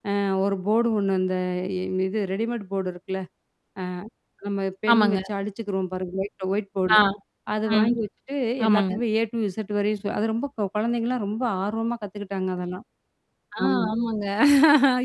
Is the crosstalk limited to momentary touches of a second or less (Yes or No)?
Yes